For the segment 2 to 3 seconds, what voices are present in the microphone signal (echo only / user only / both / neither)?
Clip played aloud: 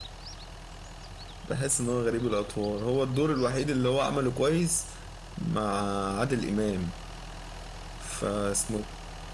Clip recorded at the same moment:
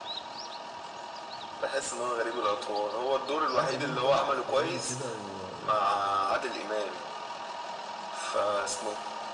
echo only